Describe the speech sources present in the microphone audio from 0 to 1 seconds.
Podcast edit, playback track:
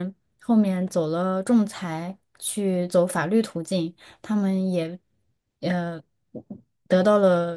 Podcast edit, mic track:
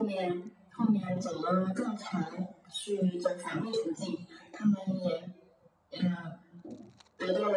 echo only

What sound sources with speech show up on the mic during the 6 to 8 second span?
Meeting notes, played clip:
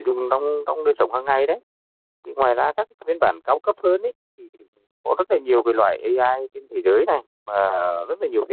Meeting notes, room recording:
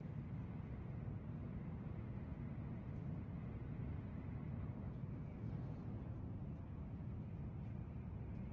neither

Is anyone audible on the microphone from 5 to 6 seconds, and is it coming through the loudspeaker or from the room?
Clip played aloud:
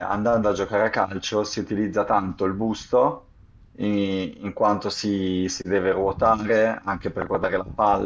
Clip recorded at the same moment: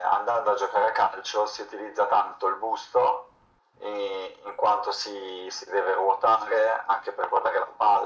echo only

